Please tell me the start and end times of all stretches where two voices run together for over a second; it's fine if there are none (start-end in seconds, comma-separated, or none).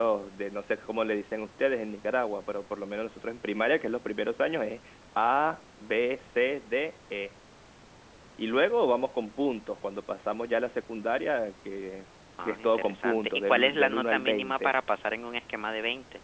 12.4-14.7